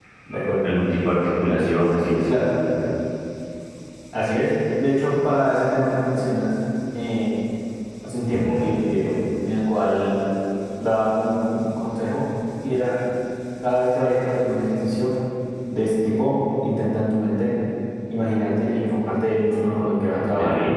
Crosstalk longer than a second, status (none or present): none